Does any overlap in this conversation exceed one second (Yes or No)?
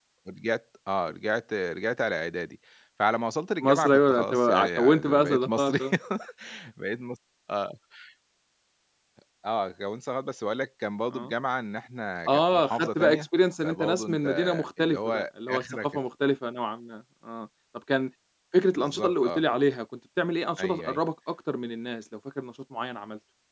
Yes